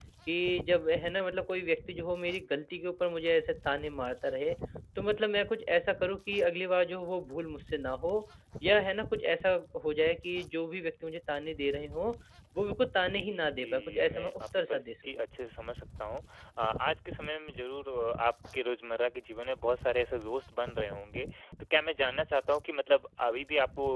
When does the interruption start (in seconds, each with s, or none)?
13.0 s